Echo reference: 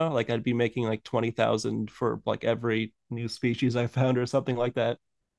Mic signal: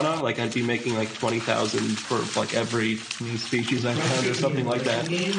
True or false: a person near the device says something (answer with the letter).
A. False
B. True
B